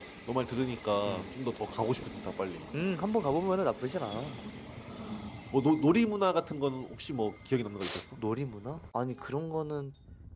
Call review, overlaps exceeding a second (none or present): none